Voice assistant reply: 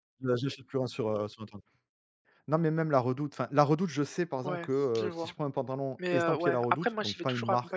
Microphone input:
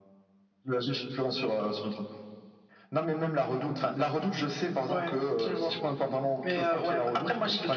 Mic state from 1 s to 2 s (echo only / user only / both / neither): echo only